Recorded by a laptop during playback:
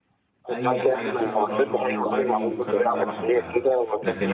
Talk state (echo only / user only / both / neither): both